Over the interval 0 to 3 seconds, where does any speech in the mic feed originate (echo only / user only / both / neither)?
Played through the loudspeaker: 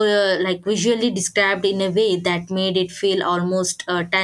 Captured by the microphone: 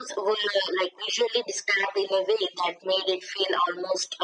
echo only